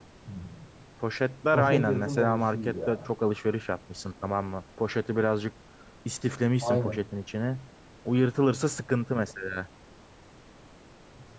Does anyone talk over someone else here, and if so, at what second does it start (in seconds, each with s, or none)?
1.5 s